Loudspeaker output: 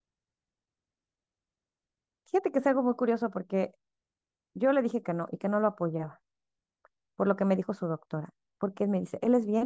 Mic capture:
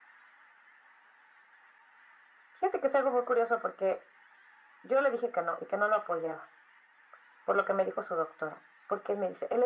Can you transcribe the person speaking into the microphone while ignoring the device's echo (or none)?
none